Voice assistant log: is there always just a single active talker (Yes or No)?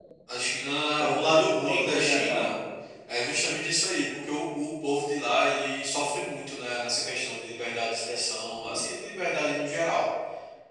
No